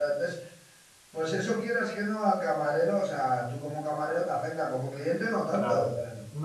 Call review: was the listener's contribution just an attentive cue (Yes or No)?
No